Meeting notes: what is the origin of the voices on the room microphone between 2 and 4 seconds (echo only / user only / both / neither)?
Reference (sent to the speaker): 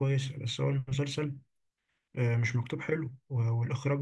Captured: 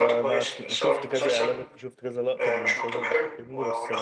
both